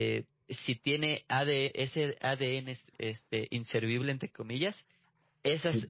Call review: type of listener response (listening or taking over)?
listening